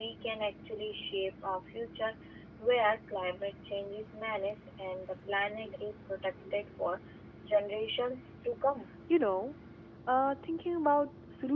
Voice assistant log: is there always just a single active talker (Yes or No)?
Yes